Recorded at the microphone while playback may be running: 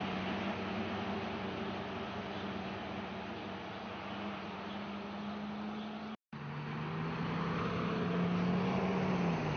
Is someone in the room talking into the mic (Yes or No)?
No